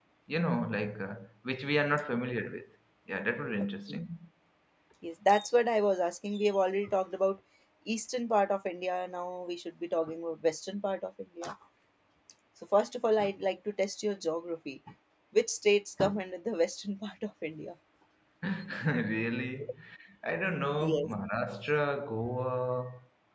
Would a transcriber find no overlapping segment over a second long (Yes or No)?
Yes